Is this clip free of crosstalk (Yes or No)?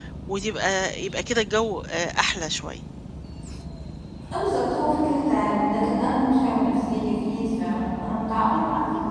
Yes